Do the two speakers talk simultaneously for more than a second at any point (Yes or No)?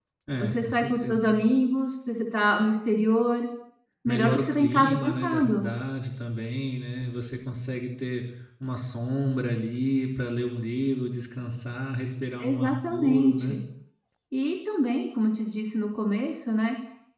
Yes